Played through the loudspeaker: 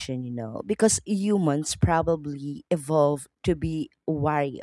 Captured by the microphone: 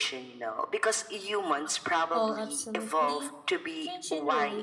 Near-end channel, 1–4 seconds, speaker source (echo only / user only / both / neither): both